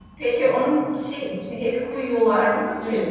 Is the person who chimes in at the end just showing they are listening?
No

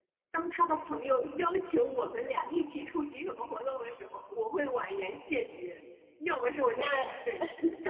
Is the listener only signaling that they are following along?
Yes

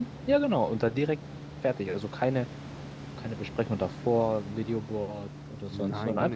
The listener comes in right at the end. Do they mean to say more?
Yes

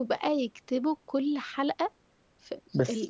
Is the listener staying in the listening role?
No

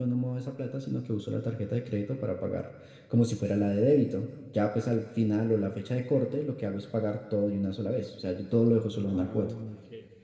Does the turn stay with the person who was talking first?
No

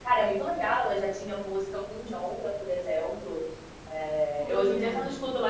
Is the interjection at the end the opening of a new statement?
No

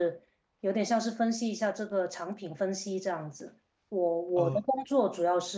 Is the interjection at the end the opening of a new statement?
No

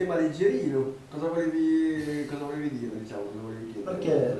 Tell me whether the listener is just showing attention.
No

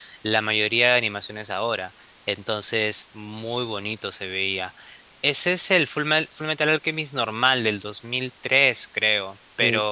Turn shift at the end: No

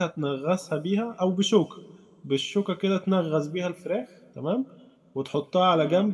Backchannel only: Yes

